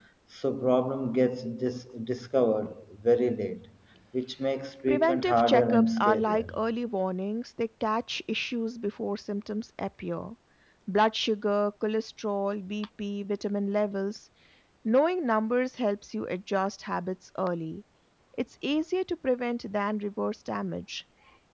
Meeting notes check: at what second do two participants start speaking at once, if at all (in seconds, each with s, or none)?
4.9 s